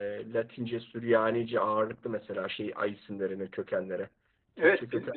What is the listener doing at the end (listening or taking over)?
taking over